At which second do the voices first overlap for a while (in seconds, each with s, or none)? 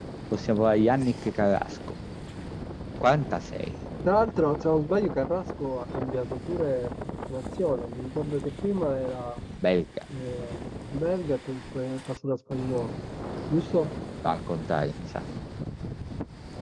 none